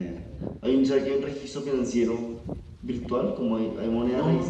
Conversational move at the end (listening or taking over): taking over